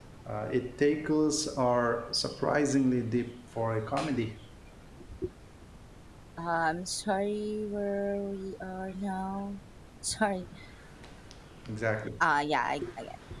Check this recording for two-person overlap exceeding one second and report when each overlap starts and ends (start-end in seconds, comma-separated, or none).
none